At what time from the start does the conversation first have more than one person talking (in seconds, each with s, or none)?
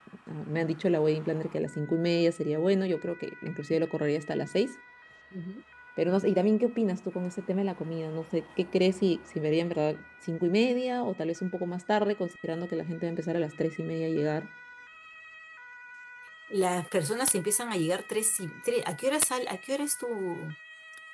none